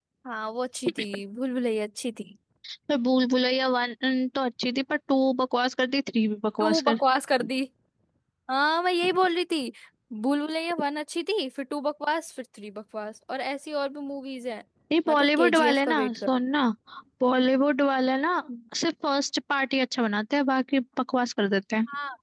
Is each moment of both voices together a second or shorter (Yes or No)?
No